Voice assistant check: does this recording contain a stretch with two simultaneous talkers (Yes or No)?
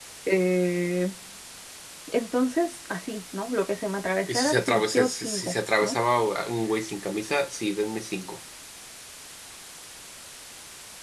Yes